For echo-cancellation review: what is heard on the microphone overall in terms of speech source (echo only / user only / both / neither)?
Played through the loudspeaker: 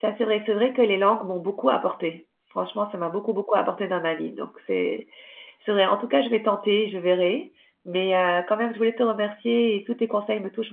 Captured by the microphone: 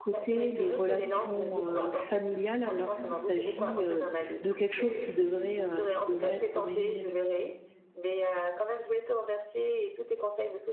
both